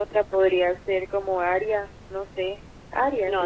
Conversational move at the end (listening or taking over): taking over